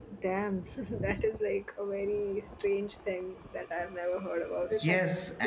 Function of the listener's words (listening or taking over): taking over